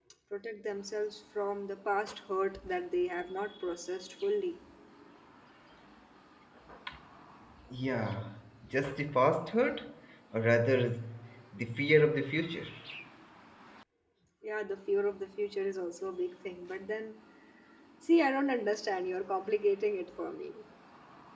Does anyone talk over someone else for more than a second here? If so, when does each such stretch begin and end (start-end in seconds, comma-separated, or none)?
none